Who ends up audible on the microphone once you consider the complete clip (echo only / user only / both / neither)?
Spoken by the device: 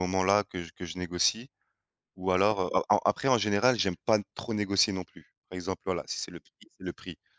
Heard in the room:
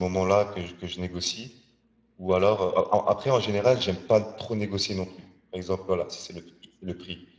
echo only